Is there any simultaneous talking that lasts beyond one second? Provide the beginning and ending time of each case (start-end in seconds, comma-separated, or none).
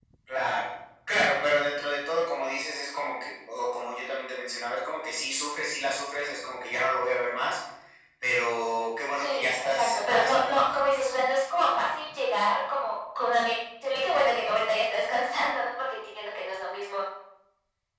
9.2-10.9